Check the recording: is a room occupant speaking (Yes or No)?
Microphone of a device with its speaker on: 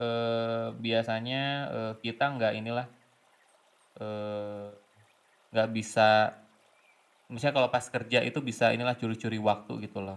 Yes